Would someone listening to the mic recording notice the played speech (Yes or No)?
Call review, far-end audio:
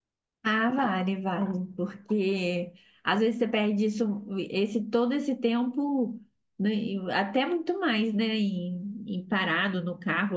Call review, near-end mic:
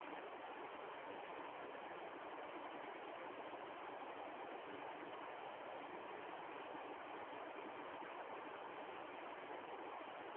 No